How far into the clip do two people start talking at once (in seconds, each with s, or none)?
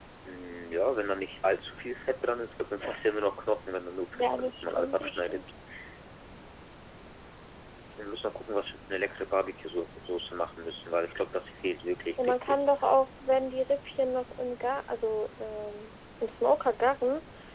4.1 s